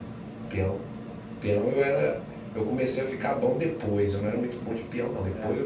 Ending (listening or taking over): listening